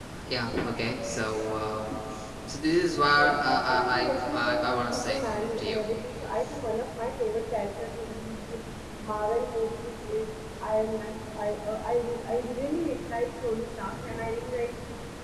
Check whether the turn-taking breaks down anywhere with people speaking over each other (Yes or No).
Yes